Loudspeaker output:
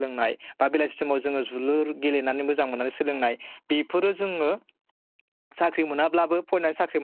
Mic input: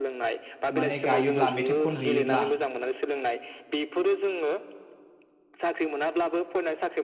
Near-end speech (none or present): present